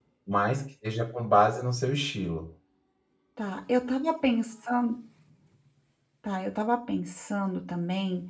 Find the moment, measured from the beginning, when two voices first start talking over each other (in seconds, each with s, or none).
none